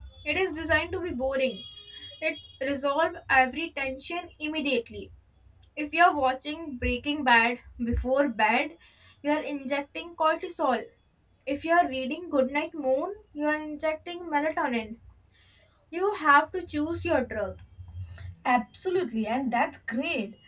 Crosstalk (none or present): none